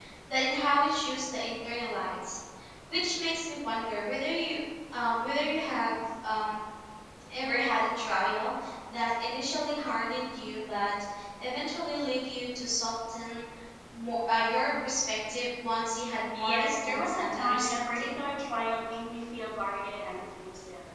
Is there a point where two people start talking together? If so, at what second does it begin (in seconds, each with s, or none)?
16.3 s